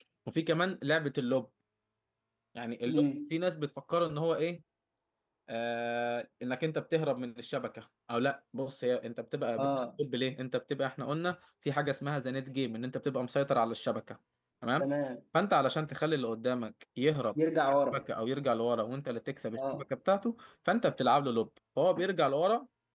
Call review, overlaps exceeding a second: none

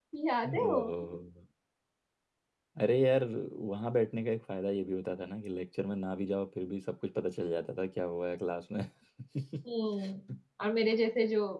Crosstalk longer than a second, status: none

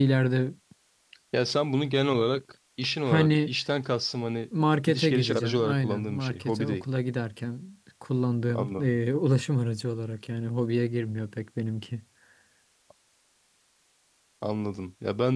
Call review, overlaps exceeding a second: present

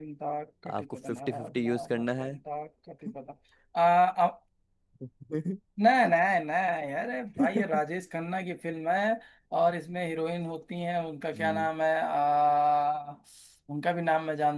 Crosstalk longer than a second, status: present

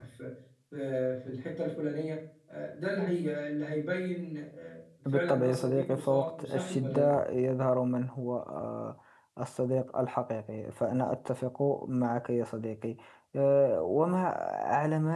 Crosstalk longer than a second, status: present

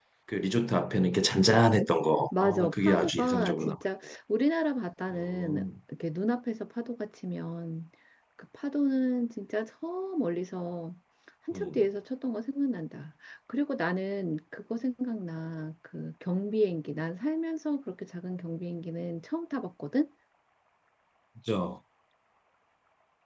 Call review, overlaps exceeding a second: present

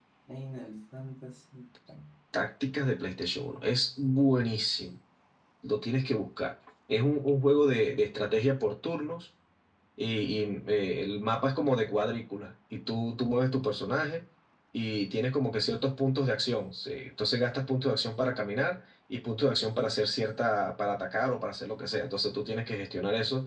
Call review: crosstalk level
none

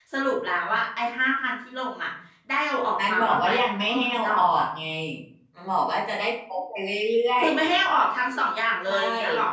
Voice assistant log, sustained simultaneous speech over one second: present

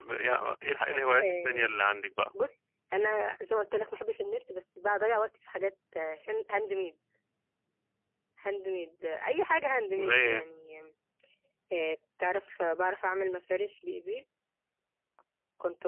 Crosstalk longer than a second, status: none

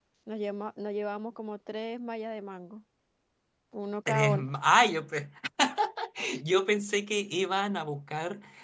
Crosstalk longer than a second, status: none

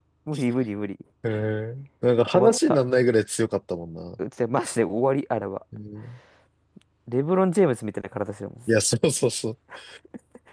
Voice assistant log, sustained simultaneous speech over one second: none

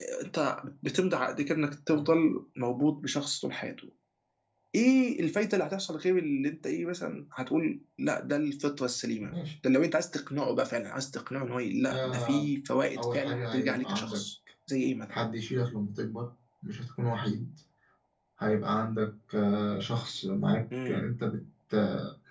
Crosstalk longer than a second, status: present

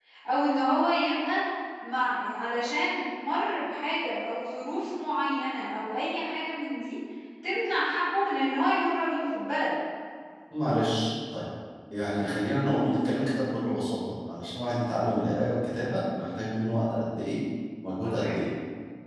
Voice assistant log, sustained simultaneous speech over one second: none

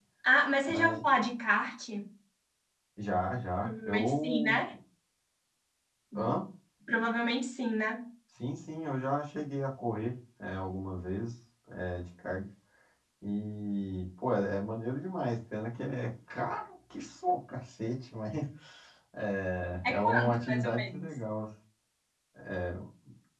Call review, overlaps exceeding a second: present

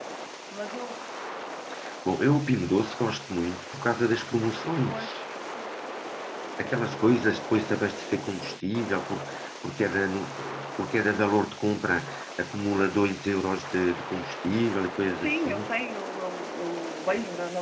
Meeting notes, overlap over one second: none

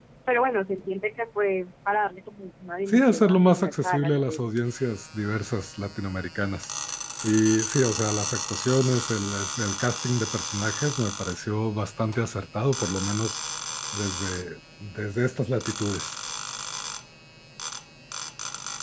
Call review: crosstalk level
present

